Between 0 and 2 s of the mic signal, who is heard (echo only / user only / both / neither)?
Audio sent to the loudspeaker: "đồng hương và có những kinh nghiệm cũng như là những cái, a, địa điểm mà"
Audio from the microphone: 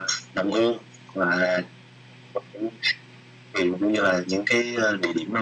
echo only